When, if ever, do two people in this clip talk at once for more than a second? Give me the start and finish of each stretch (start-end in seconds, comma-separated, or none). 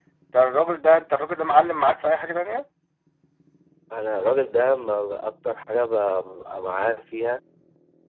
none